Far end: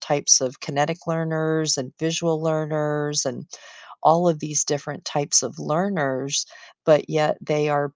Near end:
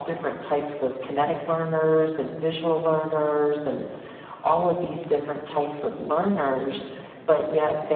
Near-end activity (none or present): none